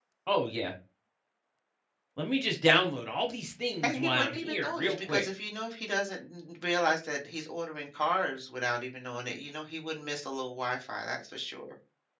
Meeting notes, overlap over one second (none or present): present